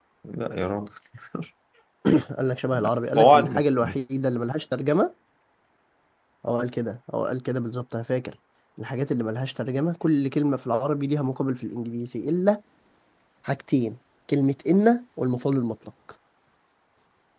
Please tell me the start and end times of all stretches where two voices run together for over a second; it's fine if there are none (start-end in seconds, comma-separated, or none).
2.7-4.0